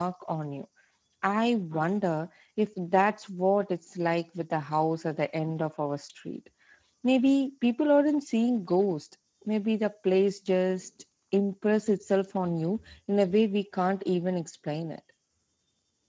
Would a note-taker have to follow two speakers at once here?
No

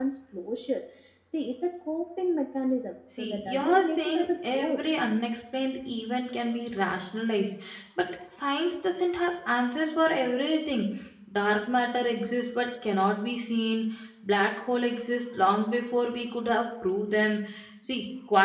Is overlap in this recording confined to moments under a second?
No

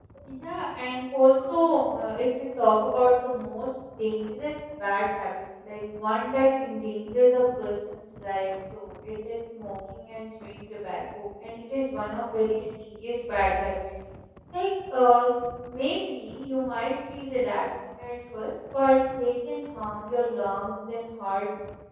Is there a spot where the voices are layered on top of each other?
No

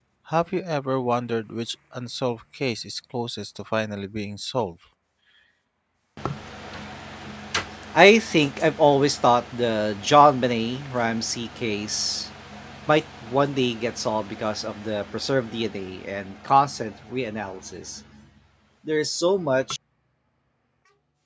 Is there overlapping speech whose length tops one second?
No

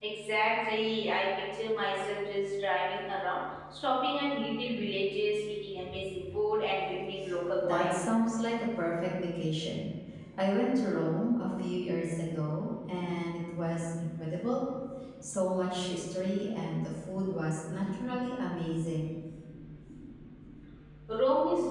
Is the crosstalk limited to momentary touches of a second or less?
Yes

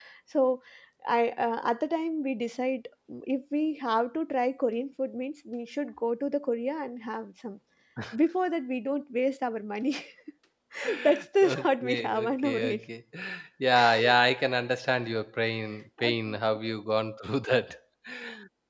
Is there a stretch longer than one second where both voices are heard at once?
Yes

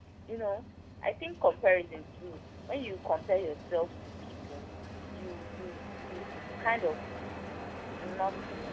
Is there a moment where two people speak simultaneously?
No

